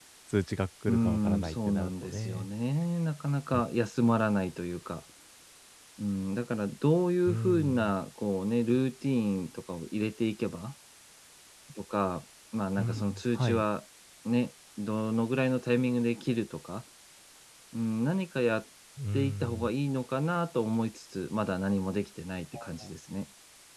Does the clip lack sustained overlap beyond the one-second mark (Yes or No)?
No